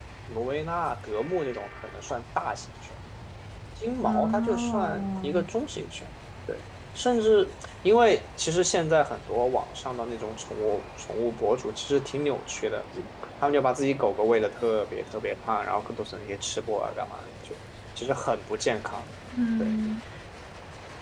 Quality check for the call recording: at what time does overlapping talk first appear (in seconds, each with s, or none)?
4.0 s